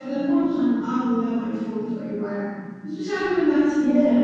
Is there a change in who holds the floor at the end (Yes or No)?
No